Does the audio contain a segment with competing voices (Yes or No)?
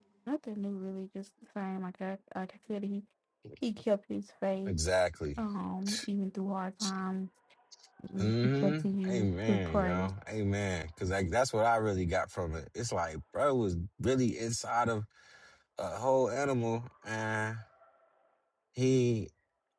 Yes